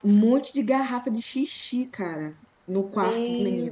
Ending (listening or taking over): taking over